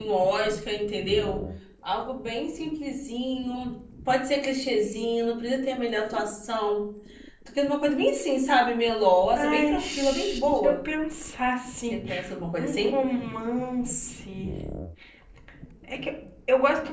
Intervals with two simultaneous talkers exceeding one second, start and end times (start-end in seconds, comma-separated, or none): 9.4-10.7